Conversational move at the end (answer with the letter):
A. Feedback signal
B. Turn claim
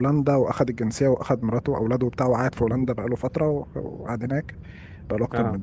A